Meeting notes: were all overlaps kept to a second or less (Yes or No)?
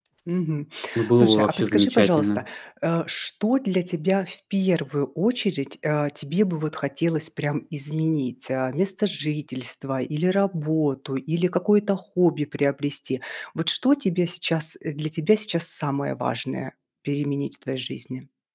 No